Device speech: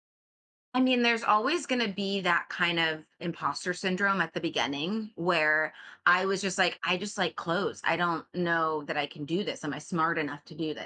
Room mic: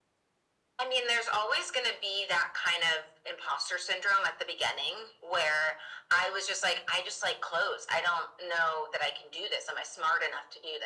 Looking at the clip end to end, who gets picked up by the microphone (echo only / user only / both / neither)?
echo only